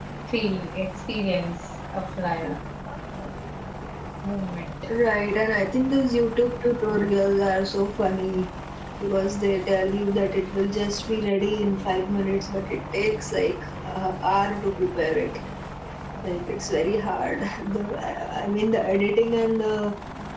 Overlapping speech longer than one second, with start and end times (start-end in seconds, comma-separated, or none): none